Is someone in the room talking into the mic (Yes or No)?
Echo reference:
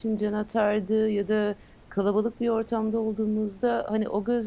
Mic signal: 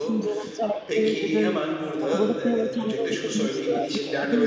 Yes